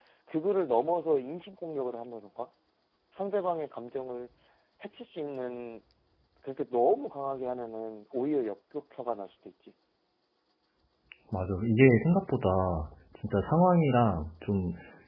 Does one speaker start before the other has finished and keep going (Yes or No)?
No